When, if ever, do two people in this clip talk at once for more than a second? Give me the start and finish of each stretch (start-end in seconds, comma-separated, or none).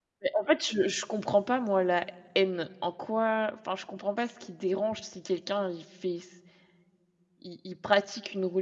none